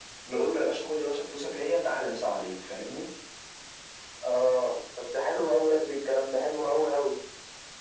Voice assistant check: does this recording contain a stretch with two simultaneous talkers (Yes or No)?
No